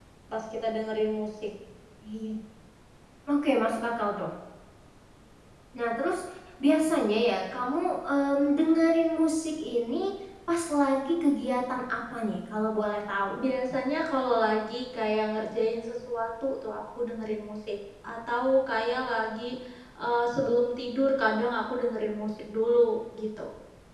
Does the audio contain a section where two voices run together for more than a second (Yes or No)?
No